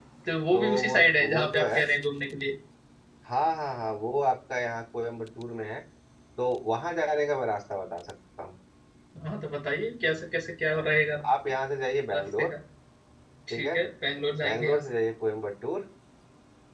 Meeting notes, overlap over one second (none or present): present